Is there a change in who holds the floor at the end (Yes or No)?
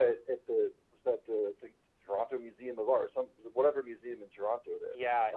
Yes